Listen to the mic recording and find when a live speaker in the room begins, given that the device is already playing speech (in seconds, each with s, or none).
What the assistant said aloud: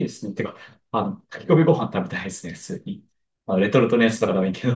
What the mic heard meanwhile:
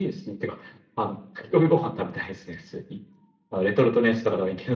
none